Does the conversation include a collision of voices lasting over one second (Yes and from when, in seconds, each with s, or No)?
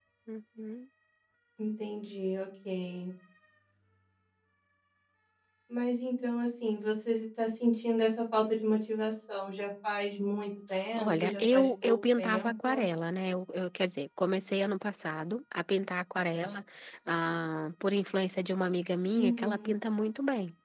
Yes, from 11.0 s